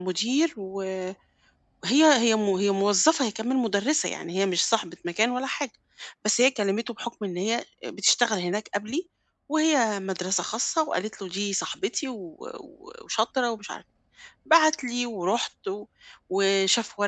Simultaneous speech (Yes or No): No